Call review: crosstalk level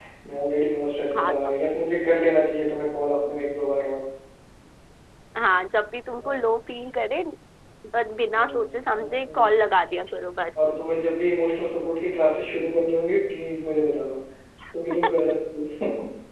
present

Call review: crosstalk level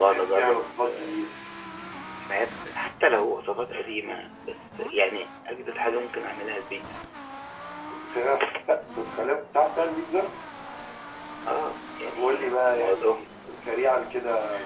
present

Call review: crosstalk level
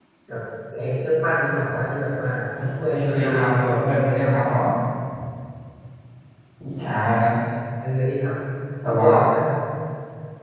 present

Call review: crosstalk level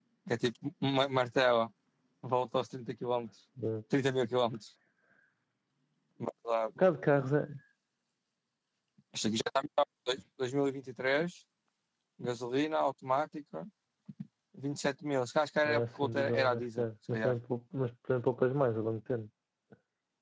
present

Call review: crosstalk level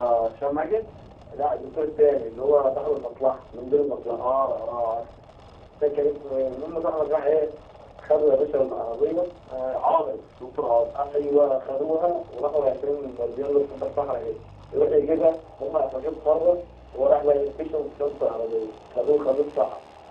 none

